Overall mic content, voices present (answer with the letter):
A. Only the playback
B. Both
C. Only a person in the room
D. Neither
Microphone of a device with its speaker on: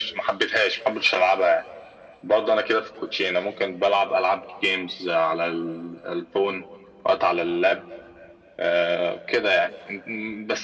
A